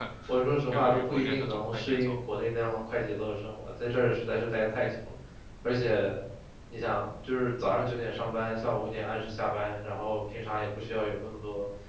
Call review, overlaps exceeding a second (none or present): present